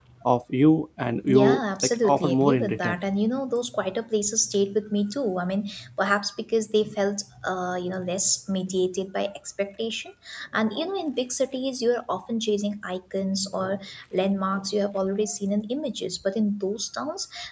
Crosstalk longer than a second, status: present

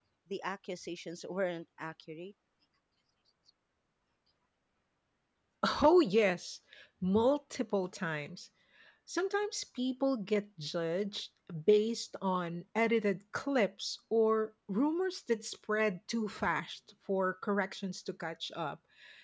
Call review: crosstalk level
none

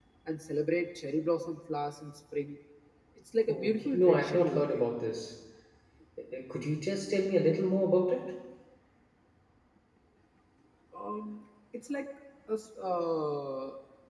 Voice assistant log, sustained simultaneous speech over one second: present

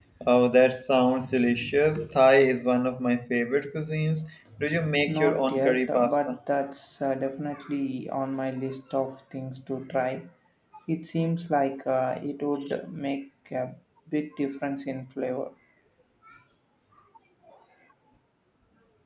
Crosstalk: present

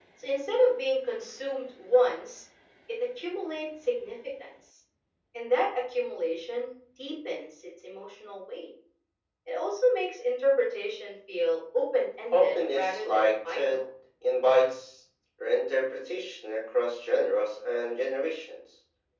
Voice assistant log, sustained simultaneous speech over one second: present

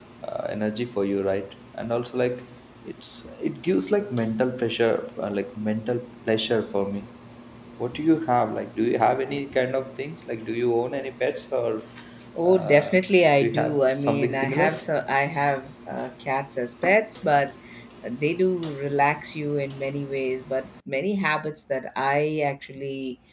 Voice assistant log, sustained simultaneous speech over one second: present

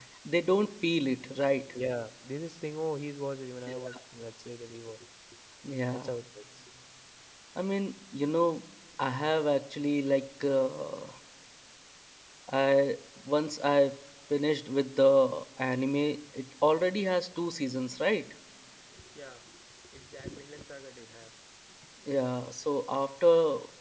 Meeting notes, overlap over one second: none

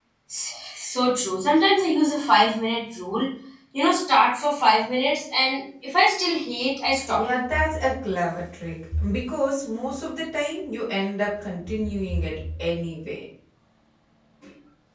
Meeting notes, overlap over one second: none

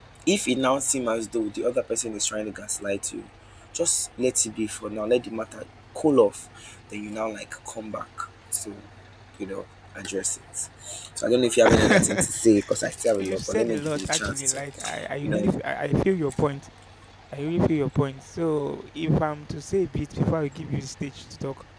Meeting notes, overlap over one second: present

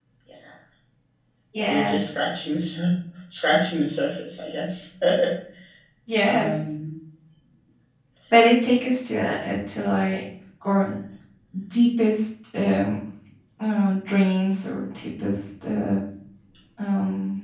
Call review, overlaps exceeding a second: none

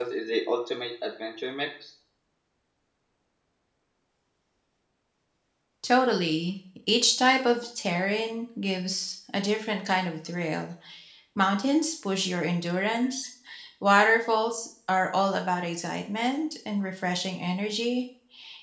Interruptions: none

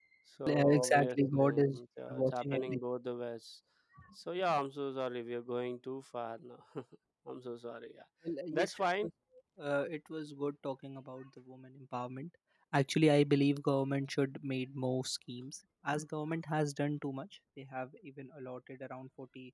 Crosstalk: present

